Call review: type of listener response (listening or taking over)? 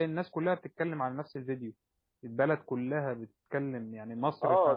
taking over